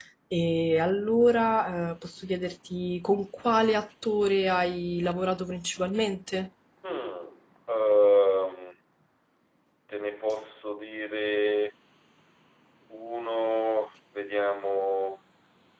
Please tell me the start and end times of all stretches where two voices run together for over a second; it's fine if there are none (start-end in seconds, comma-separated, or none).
none